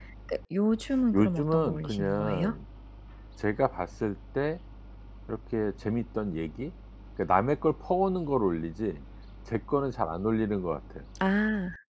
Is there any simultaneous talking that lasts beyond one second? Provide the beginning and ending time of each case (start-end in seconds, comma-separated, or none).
1.1-2.5